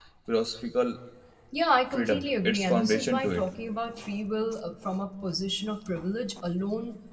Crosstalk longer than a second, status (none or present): present